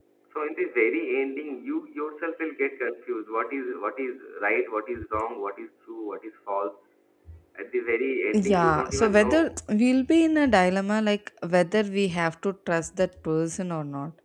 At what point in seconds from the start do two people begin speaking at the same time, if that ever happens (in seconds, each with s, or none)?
8.3 s